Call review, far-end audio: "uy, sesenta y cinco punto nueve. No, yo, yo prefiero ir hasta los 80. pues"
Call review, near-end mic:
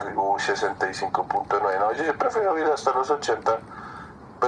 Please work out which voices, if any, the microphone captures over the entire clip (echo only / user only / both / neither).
echo only